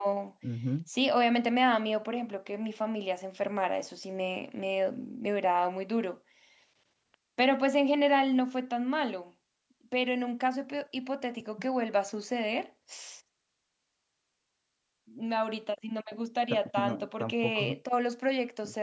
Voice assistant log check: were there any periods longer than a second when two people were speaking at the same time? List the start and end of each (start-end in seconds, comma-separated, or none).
16.5-17.8